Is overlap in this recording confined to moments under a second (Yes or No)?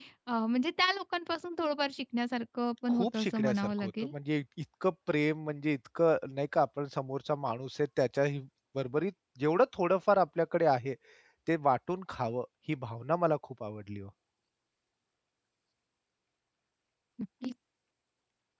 No